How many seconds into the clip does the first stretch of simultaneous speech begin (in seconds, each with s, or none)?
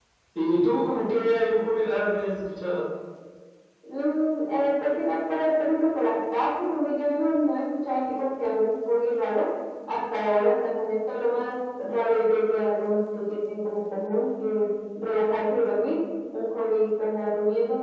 none